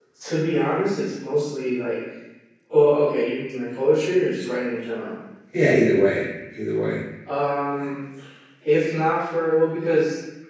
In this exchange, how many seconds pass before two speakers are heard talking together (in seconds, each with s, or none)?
none